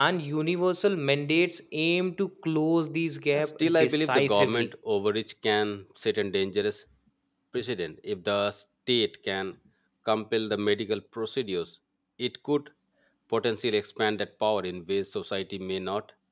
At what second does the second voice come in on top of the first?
3.3 s

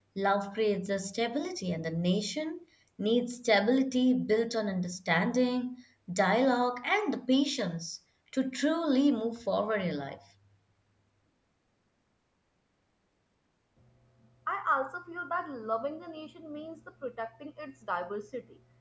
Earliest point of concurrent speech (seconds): none

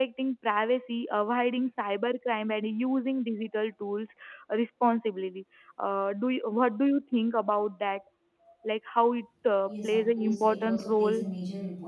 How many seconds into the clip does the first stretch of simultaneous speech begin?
9.7 s

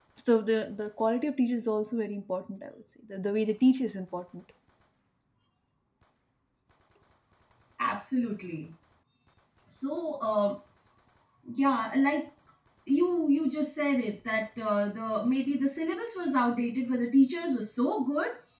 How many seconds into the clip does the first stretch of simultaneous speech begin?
none

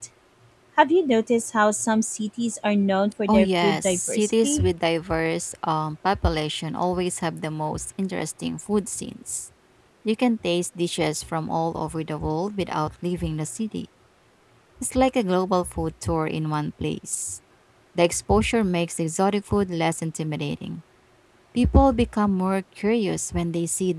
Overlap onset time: 3.3 s

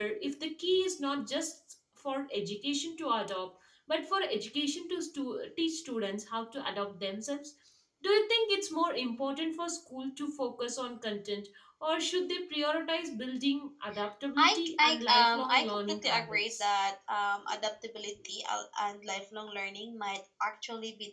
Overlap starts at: 14.4 s

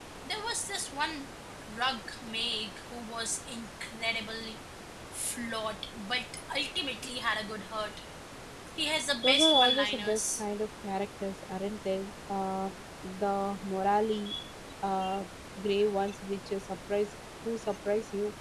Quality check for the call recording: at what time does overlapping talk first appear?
9.2 s

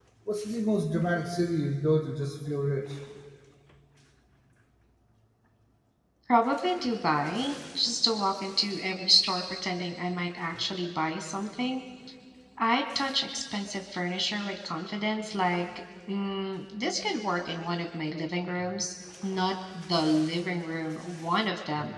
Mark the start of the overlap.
none

